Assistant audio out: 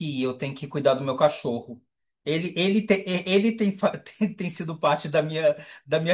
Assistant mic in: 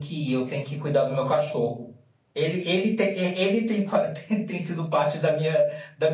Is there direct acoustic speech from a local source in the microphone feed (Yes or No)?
No